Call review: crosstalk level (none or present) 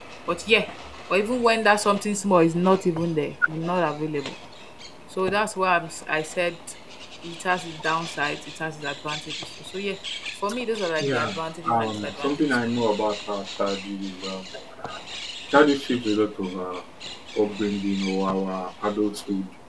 present